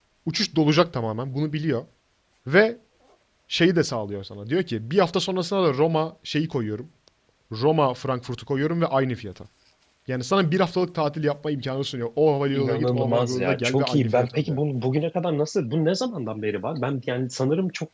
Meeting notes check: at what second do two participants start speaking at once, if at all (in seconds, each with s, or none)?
12.5 s